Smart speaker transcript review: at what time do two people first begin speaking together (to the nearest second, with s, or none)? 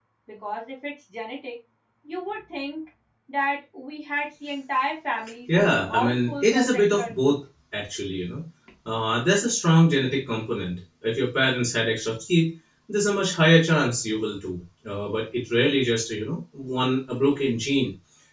5 s